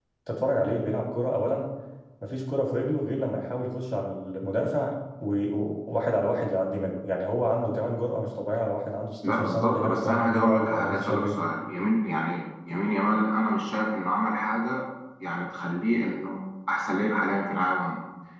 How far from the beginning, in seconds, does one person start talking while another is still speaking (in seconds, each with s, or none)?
9.2 s